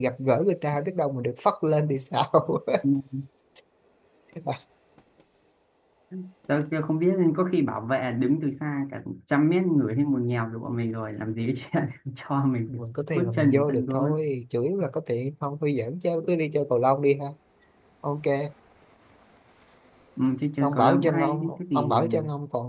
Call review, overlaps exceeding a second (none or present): present